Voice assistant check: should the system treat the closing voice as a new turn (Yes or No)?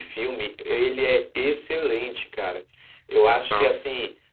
No